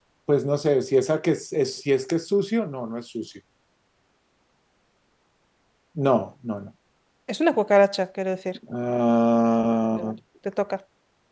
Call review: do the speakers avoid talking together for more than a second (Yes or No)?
Yes